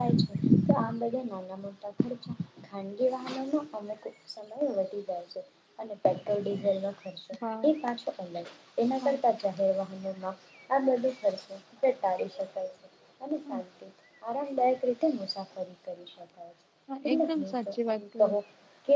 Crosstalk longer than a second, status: present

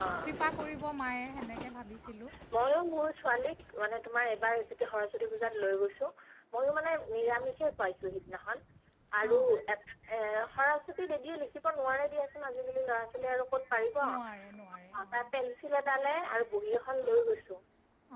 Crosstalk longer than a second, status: none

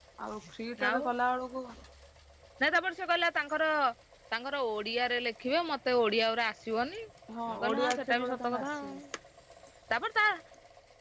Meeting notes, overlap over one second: present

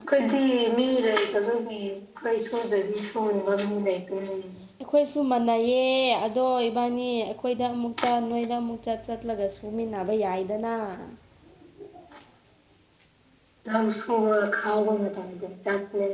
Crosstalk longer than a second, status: none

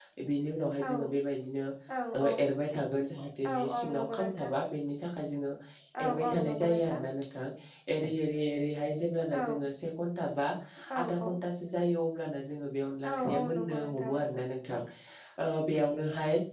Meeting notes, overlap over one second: present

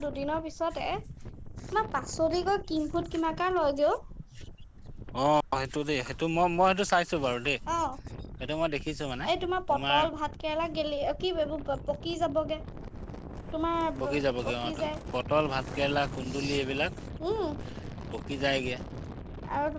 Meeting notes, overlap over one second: none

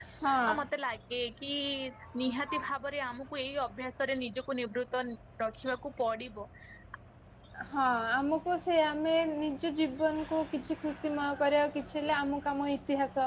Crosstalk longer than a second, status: none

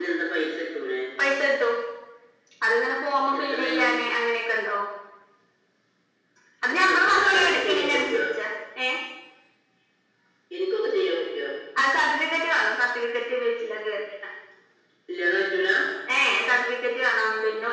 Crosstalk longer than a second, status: present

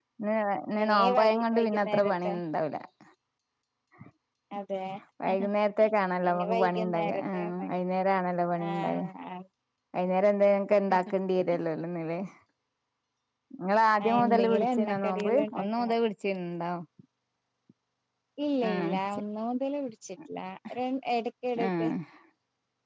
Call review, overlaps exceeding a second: present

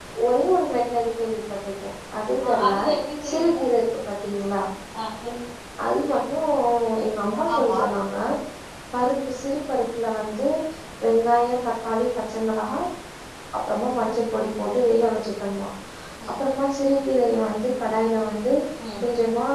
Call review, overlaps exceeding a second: none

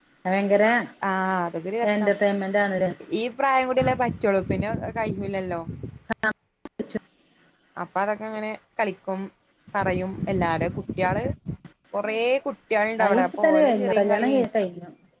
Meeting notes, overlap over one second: present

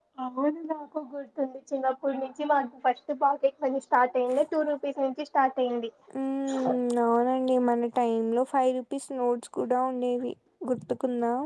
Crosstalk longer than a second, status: none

